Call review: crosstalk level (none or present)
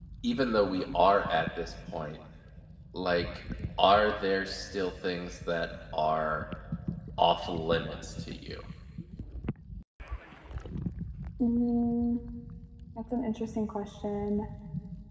none